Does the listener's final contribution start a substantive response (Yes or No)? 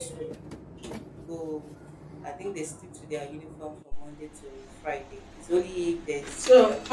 Yes